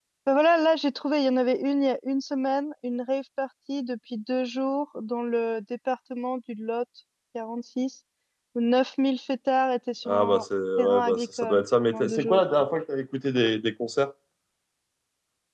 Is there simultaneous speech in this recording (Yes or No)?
Yes